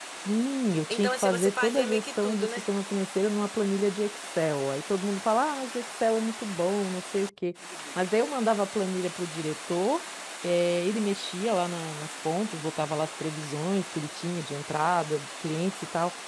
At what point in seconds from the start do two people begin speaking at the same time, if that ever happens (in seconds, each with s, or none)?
0.9 s